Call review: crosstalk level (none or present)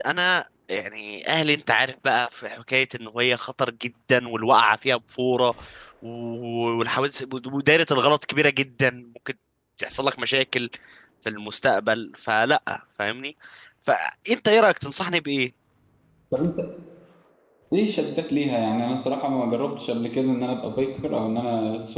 none